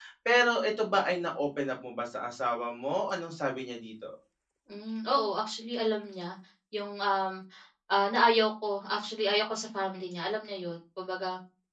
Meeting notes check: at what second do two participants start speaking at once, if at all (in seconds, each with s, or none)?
none